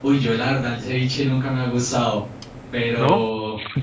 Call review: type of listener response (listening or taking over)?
listening